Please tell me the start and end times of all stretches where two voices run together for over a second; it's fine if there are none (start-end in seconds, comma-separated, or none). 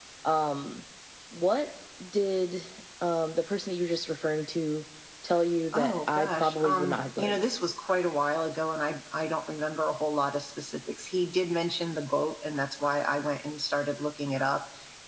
5.7-7.4